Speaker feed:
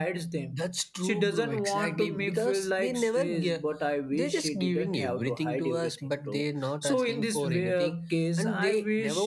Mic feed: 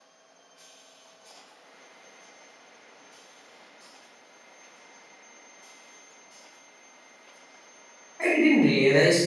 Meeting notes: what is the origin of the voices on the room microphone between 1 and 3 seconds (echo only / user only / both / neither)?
neither